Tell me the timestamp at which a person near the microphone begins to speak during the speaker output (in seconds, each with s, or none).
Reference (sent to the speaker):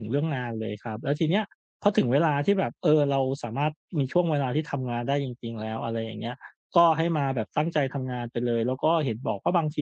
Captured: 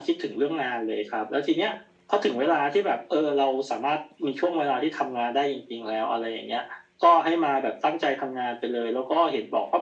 none